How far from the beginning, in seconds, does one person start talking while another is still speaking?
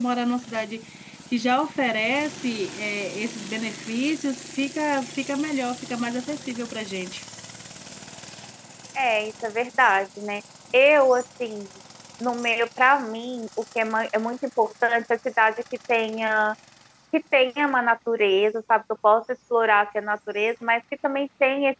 none

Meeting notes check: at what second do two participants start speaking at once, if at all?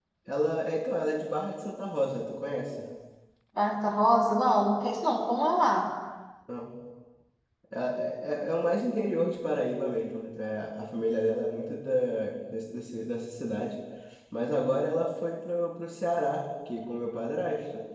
none

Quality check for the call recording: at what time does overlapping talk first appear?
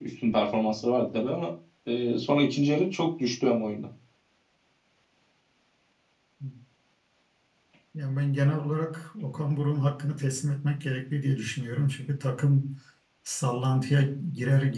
none

